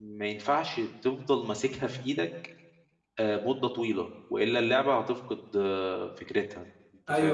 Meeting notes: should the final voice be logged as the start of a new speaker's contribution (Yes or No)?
Yes